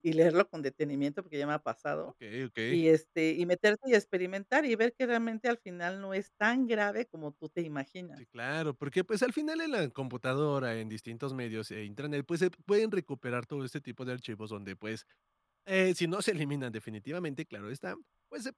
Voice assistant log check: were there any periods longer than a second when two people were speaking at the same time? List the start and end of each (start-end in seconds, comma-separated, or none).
none